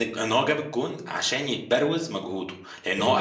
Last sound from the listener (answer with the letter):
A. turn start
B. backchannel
B